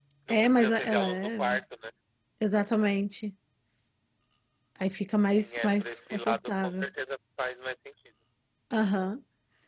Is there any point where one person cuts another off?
Yes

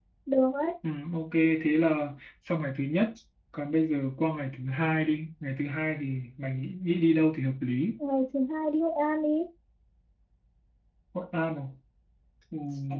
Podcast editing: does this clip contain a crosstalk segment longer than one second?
No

